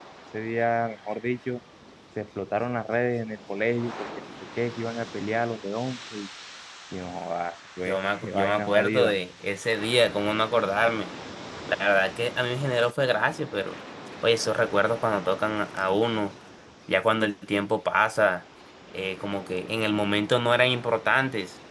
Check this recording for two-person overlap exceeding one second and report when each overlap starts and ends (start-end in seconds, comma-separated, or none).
7.8-9.1